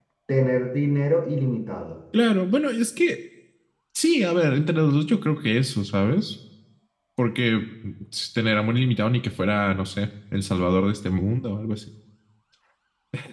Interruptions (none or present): none